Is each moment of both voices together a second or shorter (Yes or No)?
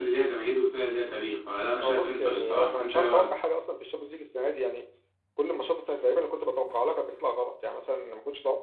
No